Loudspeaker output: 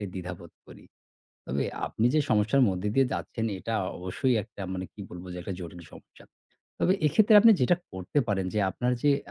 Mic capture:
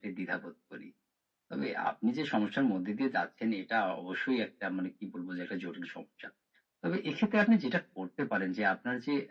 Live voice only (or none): none